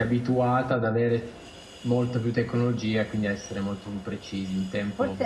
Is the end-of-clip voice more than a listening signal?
Yes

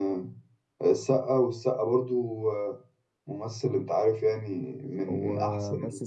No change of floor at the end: No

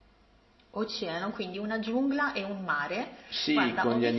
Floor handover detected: Yes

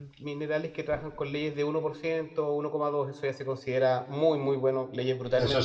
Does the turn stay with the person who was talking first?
No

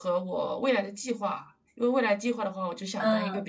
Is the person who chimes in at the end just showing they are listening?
Yes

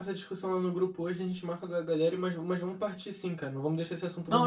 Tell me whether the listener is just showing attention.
No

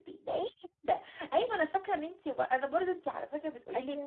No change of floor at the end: Yes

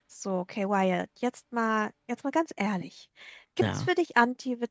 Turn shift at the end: No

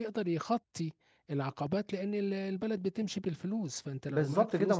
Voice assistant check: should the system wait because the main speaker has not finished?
No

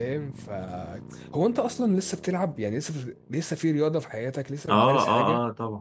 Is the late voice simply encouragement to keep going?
No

